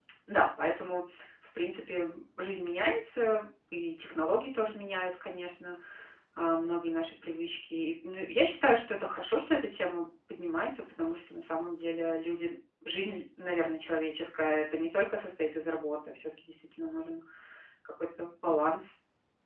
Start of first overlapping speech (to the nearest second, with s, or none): none